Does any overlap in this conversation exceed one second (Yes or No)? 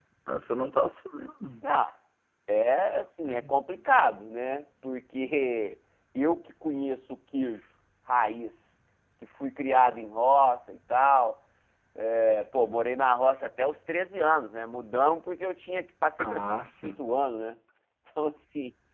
No